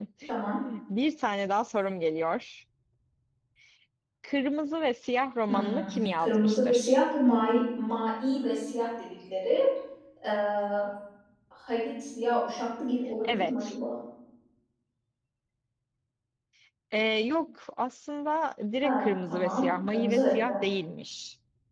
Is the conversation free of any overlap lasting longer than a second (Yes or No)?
No